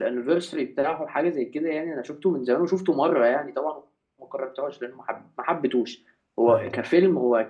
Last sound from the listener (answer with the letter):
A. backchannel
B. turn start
A